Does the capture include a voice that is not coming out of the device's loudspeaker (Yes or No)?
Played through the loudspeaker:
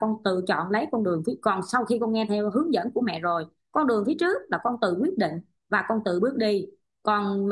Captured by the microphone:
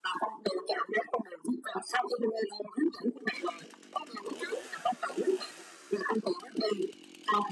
No